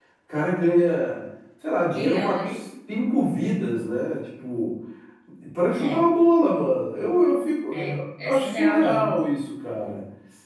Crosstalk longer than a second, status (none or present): present